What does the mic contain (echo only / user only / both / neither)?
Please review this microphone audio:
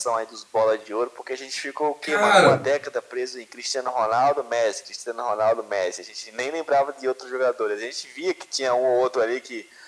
both